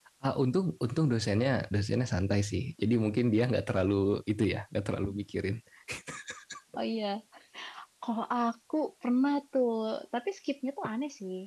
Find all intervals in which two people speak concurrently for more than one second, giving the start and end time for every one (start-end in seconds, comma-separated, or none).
none